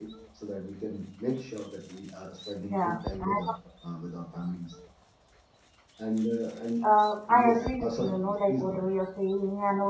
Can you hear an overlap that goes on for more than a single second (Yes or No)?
Yes